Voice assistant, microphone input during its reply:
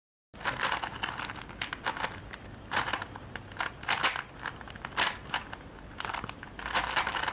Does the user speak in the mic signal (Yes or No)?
No